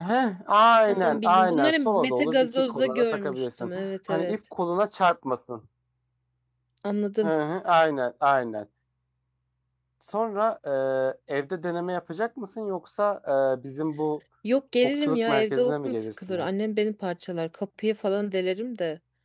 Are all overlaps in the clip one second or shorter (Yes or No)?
No